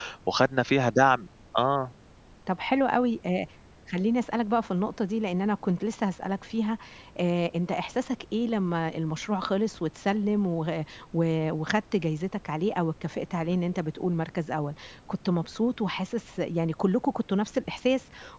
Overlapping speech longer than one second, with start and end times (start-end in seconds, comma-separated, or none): none